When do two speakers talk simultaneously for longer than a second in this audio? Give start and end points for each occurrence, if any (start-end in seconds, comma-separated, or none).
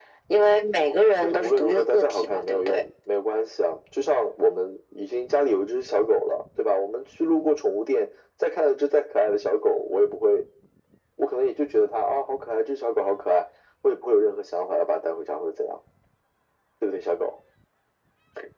1.2-2.8